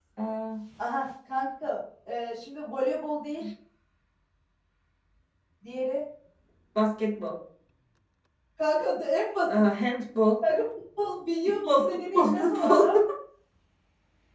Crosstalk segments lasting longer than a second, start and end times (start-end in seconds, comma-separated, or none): 11.4-12.8